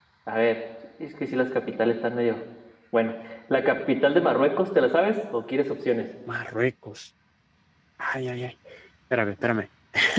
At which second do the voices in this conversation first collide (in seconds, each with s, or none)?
none